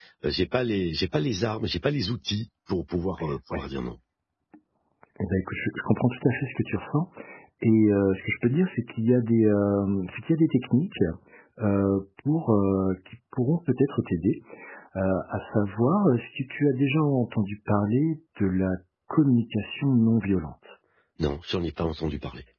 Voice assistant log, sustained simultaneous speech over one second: none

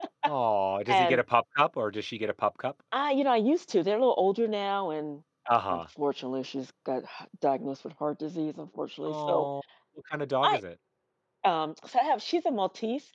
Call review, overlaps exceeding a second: none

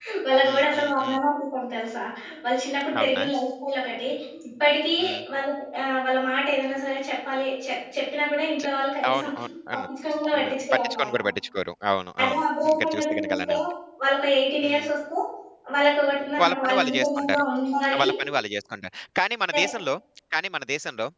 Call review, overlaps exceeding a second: present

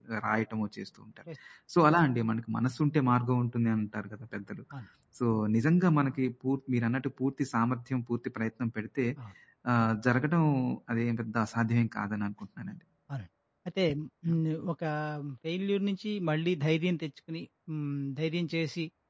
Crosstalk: none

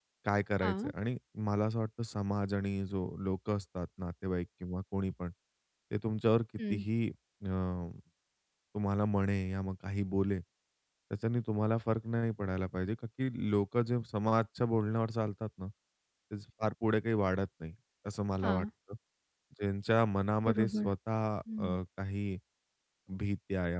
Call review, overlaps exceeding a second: none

